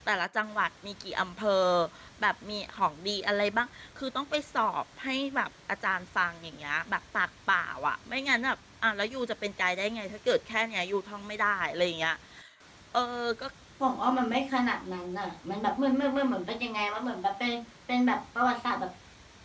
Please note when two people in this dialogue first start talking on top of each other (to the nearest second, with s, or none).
none